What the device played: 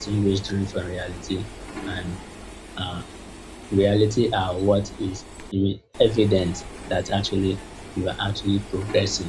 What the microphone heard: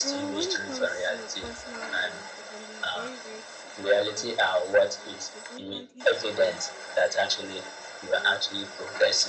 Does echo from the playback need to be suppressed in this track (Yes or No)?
Yes